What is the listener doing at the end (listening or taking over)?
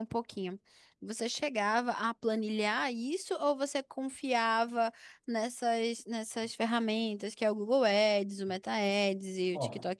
listening